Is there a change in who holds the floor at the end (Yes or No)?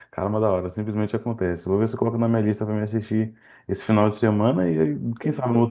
Yes